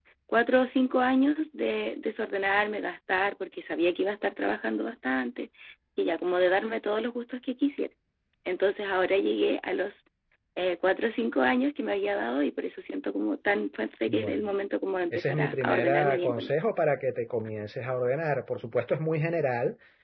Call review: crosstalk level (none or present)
present